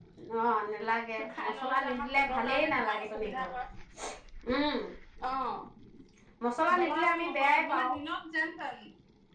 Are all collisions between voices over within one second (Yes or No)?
No